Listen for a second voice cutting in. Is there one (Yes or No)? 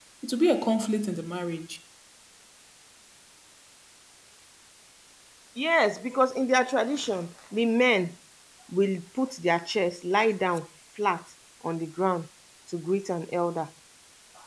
No